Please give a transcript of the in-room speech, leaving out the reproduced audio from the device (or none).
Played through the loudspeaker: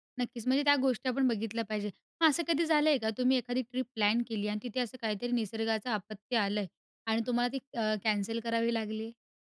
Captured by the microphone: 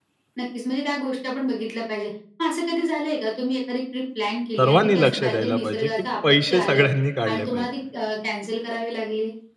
सर्वांनी लक्ष द्यायला पाहिजे की पैसे सगळ्यांनी काढले पाहिजेत.